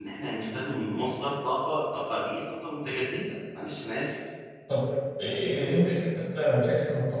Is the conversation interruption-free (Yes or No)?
Yes